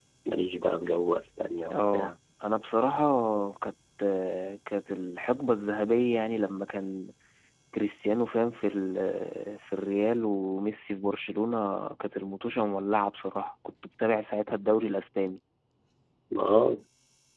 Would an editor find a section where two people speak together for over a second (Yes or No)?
No